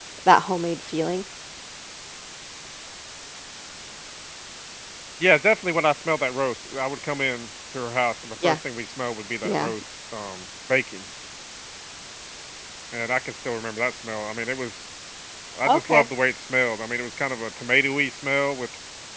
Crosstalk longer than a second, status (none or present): none